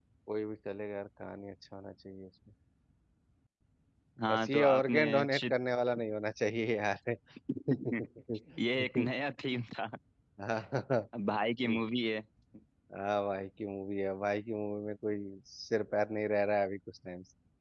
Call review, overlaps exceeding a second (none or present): present